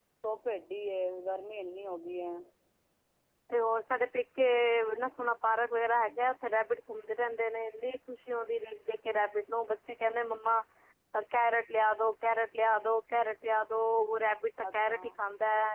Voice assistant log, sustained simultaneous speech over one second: none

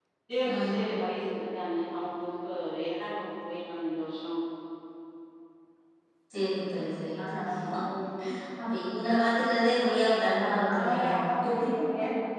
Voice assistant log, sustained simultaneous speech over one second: none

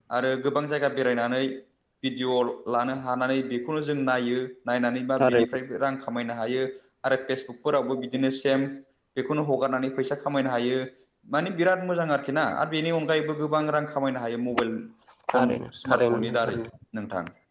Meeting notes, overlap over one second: present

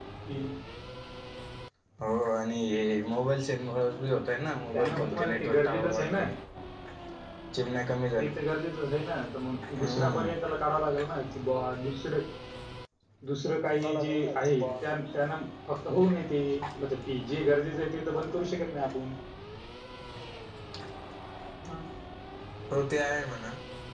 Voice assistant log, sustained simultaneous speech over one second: present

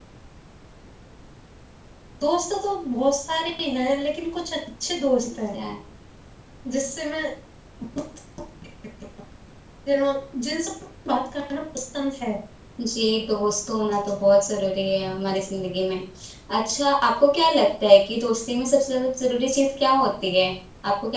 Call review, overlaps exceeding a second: none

